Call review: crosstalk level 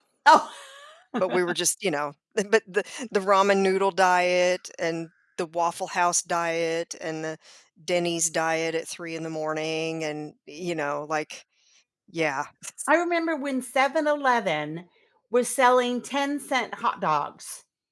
none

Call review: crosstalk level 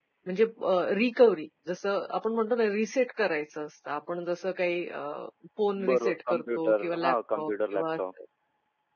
present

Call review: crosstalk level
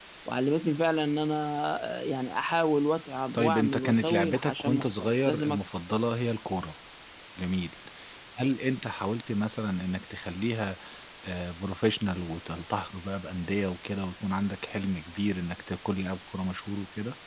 present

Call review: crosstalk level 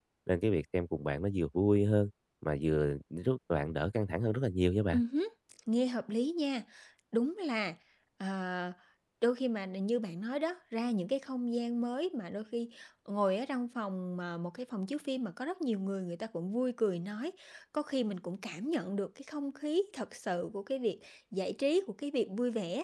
none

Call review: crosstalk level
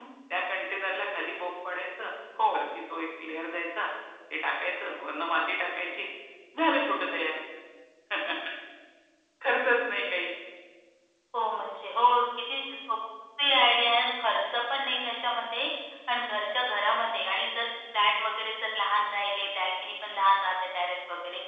none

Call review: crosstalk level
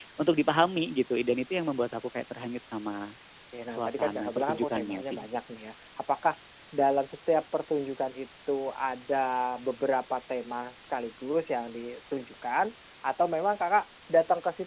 present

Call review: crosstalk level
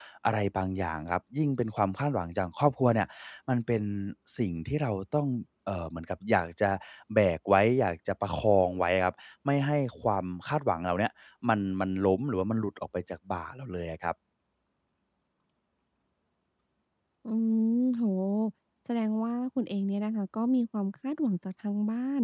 none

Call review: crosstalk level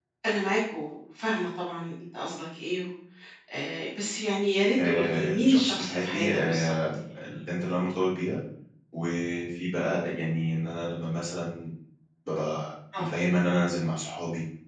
present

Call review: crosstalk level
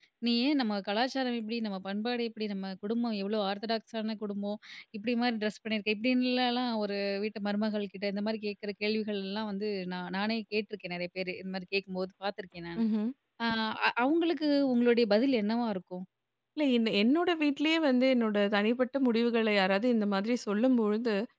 none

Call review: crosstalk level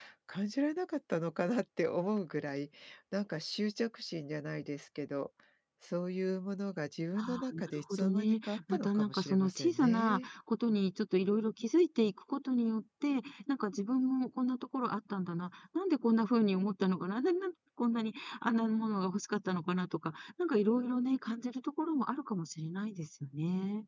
present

